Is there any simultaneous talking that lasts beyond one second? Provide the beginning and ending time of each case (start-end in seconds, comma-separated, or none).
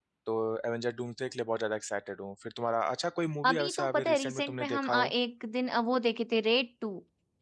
3.4-5.1